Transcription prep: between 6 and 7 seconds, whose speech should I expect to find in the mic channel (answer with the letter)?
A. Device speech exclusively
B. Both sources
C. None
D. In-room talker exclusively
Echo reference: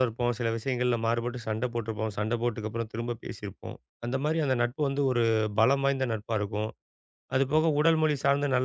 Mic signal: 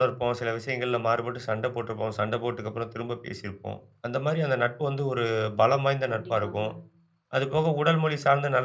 B